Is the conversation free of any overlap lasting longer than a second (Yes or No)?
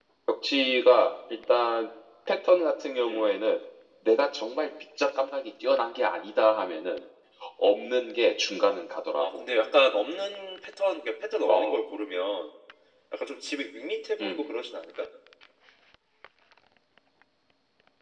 Yes